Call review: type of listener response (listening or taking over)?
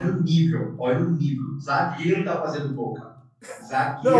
taking over